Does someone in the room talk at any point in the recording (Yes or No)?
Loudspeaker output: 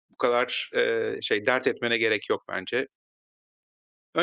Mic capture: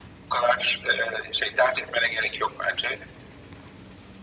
No